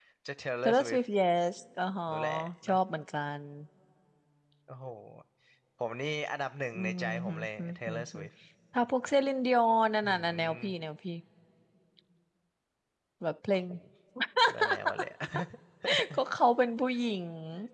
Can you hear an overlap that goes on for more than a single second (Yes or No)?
Yes